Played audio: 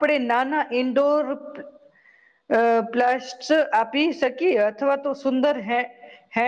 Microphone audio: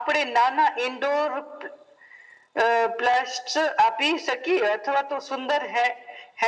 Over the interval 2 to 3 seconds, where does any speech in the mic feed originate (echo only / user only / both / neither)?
echo only